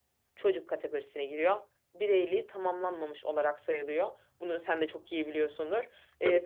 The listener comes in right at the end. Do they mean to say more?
No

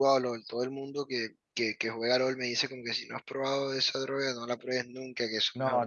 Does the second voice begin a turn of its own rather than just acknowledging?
Yes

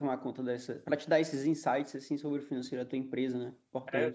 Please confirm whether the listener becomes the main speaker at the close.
Yes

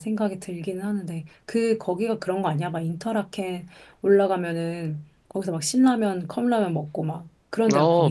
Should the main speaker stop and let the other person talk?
Yes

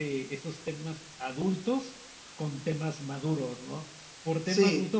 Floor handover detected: No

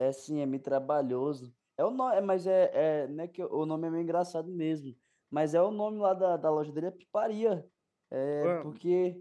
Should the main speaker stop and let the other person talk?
No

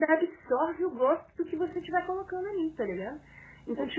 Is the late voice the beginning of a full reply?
No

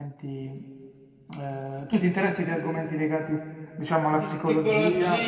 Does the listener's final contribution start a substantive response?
Yes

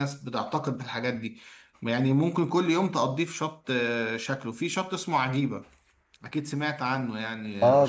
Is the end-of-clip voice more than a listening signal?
Yes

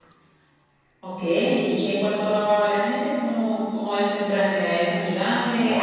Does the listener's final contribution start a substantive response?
Yes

